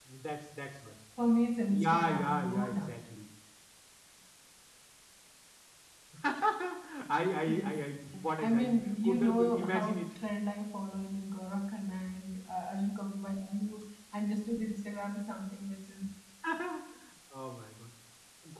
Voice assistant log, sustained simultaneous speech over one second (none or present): present